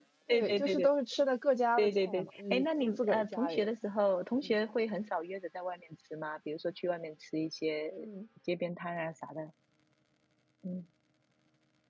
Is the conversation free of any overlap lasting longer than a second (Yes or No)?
No